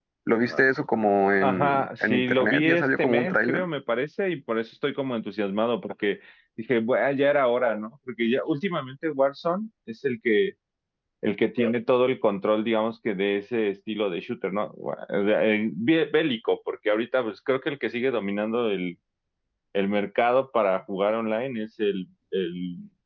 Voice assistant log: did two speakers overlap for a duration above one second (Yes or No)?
Yes